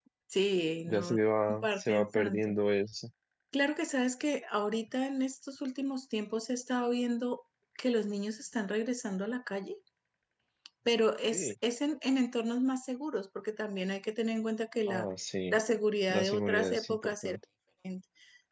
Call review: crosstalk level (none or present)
present